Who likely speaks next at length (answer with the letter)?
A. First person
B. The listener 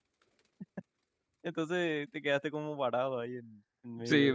B